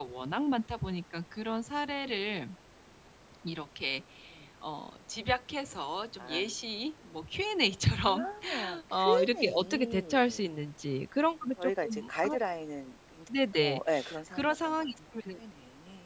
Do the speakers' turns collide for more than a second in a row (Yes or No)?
Yes